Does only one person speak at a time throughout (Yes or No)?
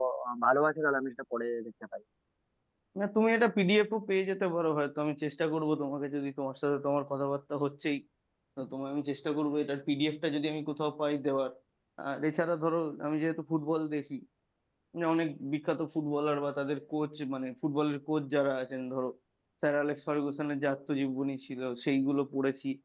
Yes